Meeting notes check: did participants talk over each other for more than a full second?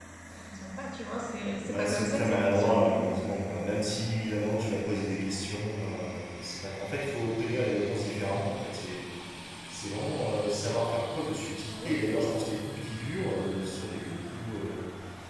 Yes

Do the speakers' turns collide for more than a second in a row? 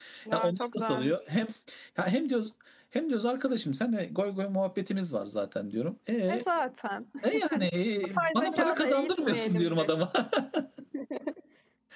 Yes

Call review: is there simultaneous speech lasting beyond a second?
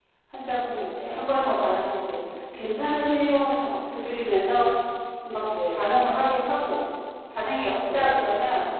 No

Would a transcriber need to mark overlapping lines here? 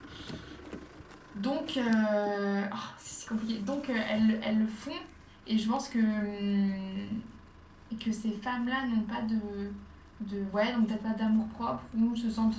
No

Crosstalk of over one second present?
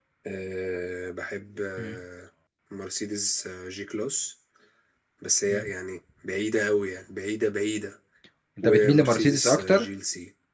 Yes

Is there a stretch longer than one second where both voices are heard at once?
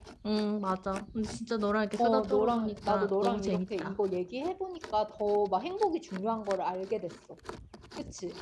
Yes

